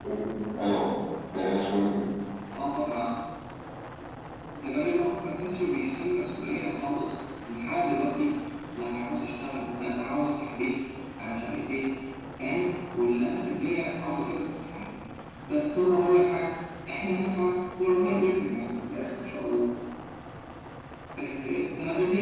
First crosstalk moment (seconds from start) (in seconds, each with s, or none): none